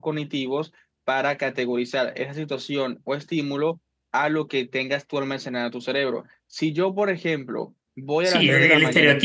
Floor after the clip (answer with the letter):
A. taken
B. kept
A